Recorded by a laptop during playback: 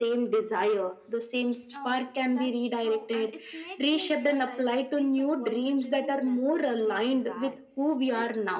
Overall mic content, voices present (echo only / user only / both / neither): both